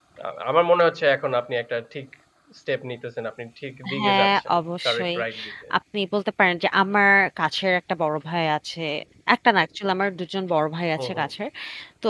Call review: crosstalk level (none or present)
present